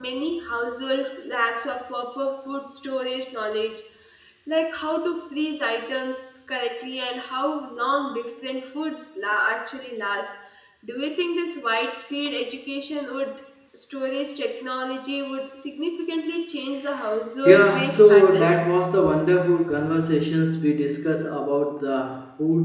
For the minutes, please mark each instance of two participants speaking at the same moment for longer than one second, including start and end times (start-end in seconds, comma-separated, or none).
17.4-18.7